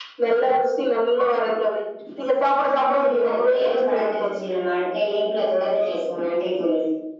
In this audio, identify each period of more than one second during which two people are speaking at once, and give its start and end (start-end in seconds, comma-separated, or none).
2.8-4.2